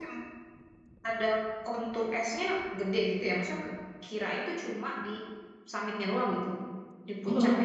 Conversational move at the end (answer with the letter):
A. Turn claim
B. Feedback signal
B